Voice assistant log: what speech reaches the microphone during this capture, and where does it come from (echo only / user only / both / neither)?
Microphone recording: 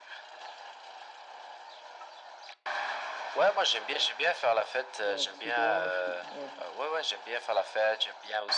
both